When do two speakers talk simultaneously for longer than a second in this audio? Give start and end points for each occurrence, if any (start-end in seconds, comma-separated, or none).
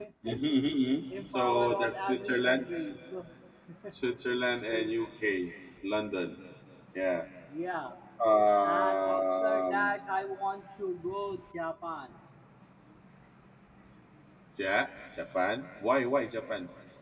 1.3-2.6, 8.6-9.9